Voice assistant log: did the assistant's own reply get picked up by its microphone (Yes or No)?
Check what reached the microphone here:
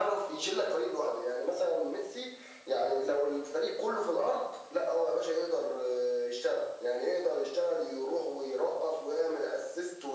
Yes